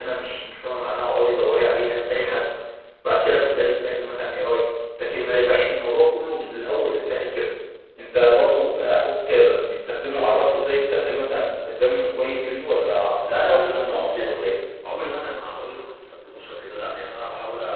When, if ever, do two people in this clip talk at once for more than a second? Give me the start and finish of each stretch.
13.3-14.5

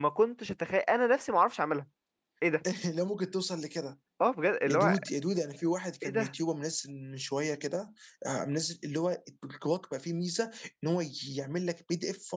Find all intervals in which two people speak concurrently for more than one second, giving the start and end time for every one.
none

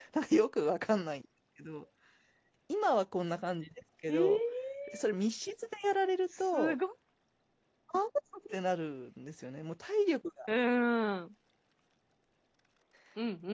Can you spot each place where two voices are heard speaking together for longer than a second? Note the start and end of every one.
none

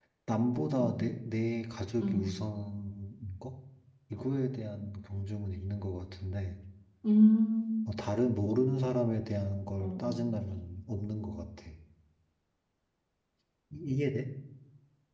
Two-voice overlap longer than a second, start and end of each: none

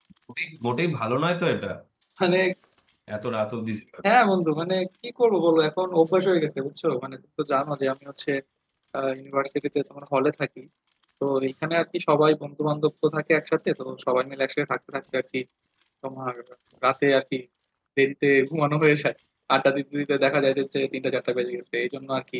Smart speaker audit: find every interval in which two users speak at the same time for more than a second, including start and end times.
none

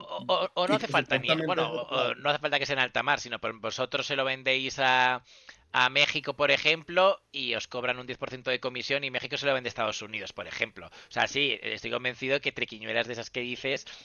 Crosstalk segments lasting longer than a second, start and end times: 0.7-2.1

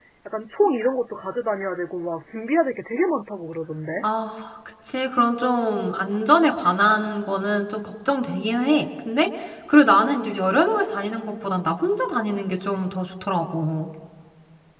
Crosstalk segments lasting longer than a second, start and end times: none

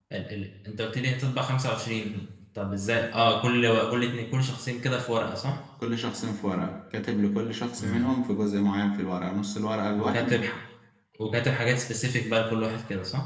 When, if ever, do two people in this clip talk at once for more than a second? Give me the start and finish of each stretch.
none

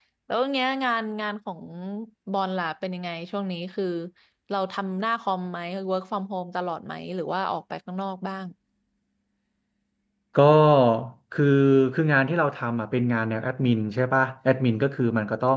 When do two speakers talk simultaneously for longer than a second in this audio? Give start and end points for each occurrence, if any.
none

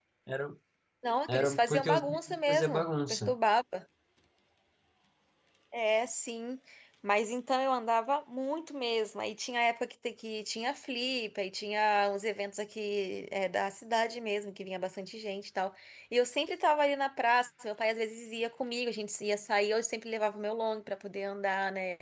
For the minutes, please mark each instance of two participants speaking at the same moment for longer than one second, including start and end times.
1.3-3.3

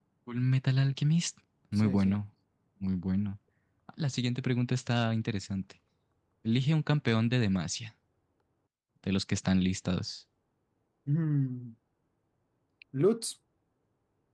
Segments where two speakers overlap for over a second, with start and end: none

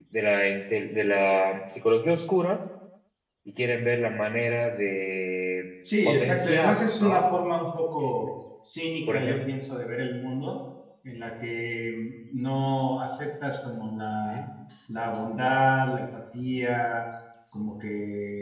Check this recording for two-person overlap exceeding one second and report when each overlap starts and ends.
6.0-7.3

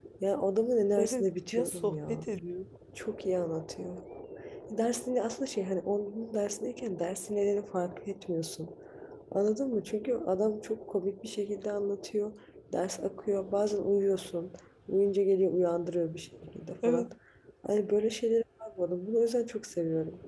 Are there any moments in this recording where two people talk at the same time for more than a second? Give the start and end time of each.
1.0-2.3

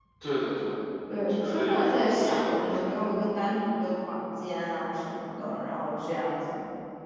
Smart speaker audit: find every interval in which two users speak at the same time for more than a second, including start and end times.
1.2-2.9

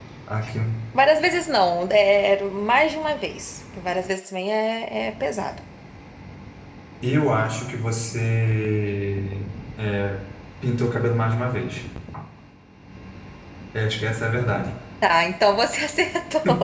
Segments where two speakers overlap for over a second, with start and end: none

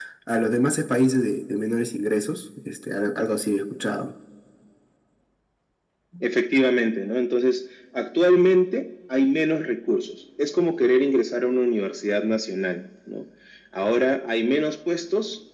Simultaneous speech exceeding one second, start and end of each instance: none

